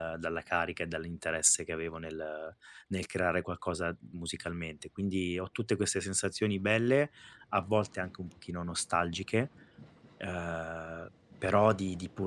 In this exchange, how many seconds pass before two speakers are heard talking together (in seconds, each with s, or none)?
none